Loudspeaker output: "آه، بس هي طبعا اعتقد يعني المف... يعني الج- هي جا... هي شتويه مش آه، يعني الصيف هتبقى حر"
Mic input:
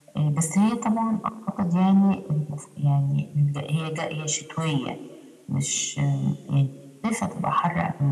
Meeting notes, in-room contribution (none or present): none